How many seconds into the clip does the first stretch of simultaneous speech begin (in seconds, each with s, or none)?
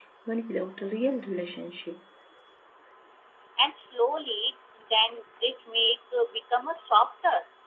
none